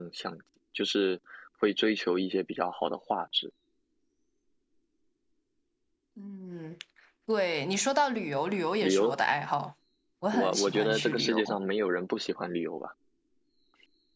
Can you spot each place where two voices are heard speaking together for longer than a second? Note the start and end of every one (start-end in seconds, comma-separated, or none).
10.3-11.6